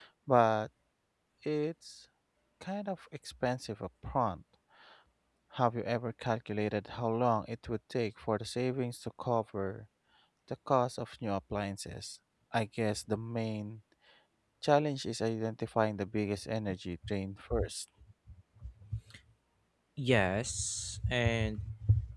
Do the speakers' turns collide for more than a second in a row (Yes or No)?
No